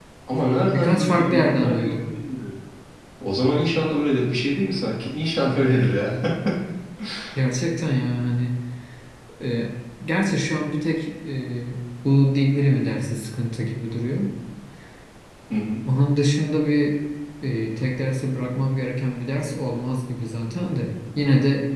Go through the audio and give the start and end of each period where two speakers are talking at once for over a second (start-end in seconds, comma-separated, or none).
0.7-2.1